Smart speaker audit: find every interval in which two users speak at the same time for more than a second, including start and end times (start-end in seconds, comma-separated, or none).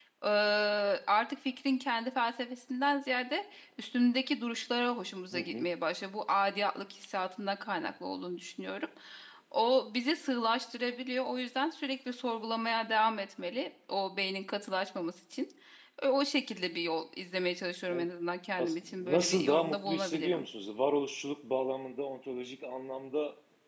18.6-20.4